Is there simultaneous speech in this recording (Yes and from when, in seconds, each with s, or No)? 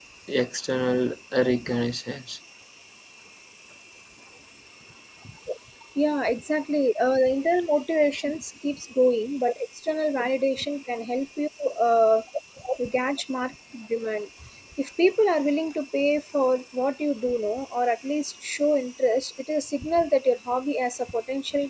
No